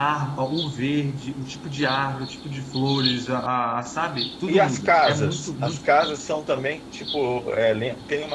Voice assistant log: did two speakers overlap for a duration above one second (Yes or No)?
Yes